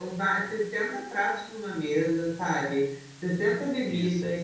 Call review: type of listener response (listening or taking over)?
listening